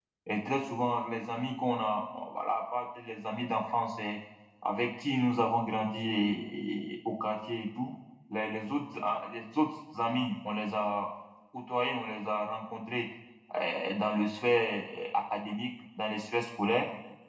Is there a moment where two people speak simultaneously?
No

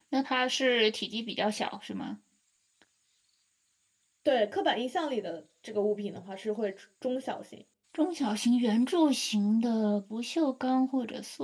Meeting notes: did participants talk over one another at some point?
No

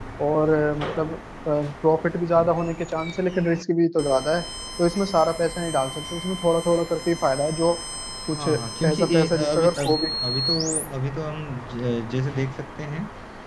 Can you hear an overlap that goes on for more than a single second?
Yes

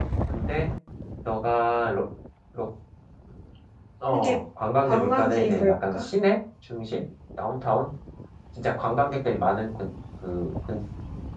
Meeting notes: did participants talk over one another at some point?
Yes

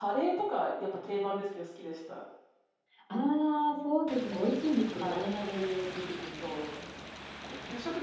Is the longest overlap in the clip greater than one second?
No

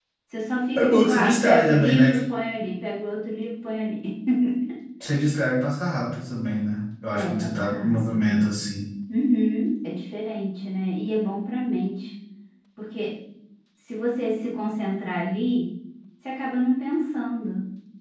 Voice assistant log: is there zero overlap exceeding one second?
No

